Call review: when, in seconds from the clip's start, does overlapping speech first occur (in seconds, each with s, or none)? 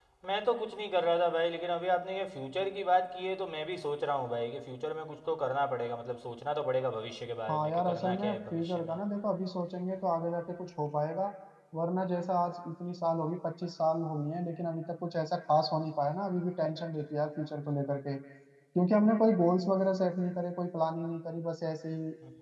7.5 s